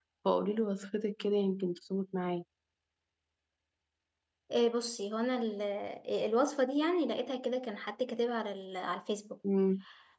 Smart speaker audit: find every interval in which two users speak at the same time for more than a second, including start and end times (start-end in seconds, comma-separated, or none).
none